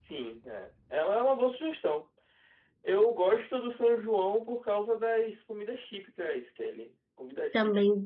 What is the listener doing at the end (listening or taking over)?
taking over